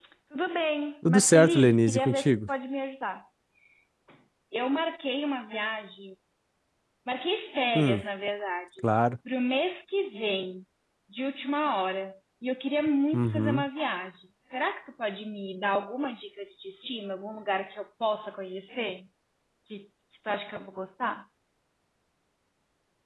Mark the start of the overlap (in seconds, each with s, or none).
1.1 s